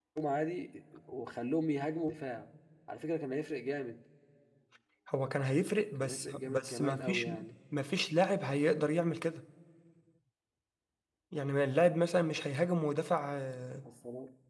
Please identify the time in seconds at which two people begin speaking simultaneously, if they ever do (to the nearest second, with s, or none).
6 s